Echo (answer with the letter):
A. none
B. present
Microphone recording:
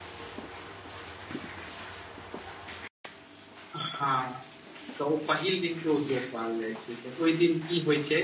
A